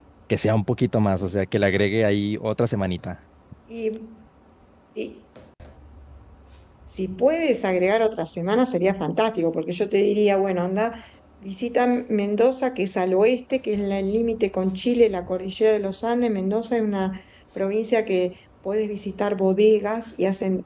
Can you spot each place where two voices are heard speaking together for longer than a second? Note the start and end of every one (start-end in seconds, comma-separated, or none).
none